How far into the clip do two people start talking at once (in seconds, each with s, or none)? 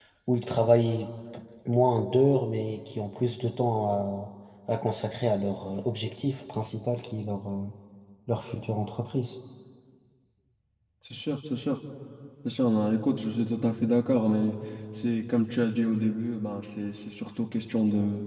none